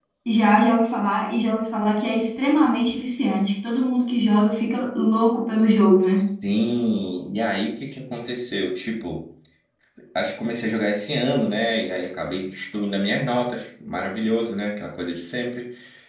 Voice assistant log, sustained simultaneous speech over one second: none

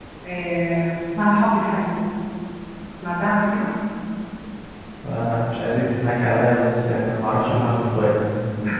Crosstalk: none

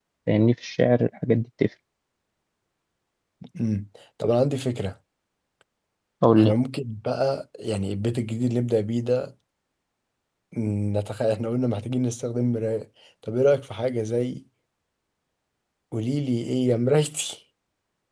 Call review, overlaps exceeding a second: none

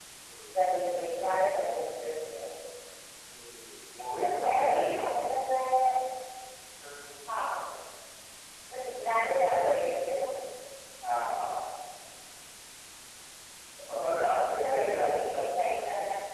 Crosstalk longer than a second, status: present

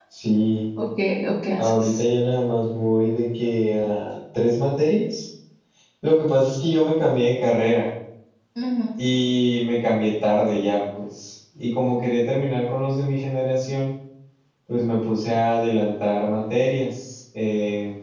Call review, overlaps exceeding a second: none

